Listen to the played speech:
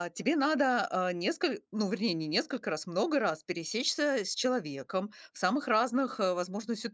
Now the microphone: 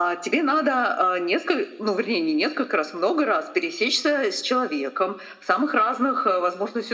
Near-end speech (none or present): none